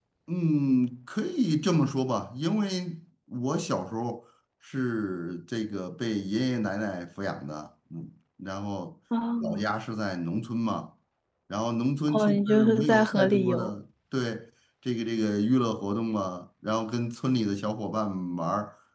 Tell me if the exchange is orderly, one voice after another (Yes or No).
No